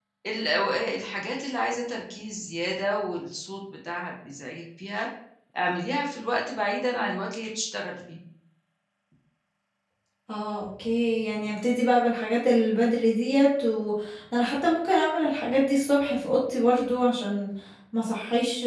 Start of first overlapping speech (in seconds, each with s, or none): none